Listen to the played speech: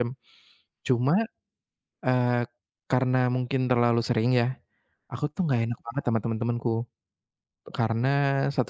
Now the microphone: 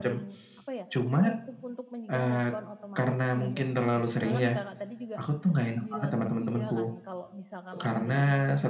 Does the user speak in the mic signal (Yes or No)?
Yes